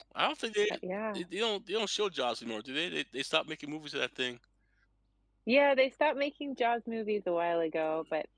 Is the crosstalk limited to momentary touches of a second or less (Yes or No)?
Yes